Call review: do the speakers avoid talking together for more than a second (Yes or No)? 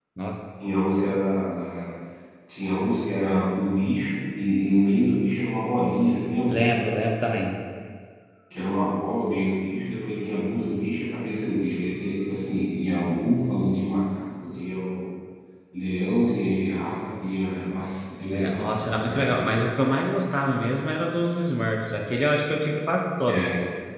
No